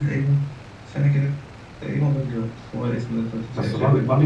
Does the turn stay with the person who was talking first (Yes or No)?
No